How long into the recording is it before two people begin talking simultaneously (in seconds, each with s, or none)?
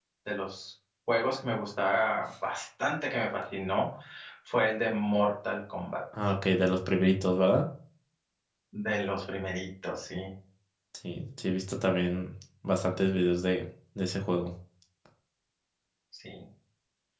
none